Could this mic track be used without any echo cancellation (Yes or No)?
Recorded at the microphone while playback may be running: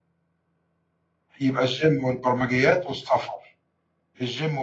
Yes